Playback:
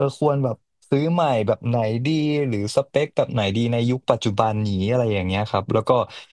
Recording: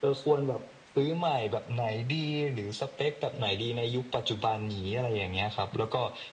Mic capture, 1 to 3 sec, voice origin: echo only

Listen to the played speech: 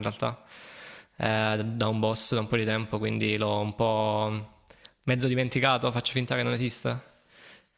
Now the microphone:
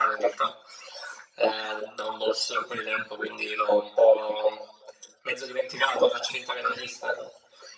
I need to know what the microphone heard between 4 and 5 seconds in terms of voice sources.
echo only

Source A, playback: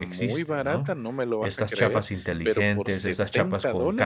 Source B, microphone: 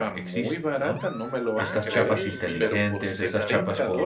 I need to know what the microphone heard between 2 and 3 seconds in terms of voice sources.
both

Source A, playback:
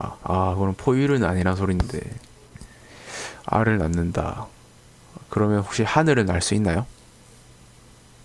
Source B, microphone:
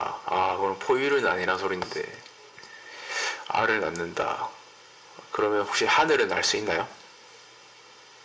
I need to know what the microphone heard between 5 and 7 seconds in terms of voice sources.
echo only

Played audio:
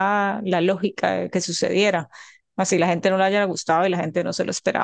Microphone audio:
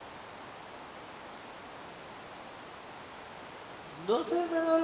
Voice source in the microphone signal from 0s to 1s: neither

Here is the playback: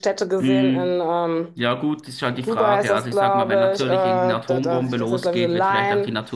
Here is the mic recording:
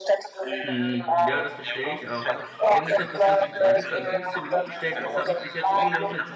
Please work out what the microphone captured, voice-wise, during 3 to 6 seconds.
both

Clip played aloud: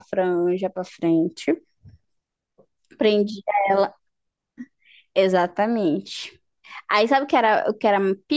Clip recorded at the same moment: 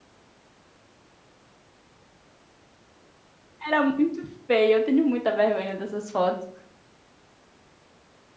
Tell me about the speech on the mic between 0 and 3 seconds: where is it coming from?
neither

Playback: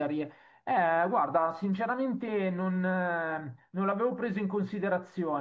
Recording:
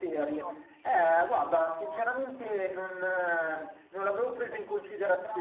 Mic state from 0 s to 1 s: both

